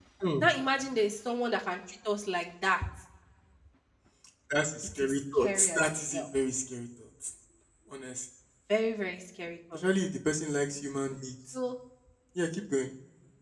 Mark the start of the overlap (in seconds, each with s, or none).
4.8 s